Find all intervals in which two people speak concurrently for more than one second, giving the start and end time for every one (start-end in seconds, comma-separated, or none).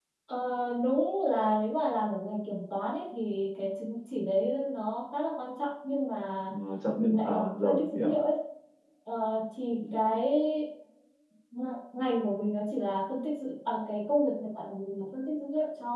7.0-8.2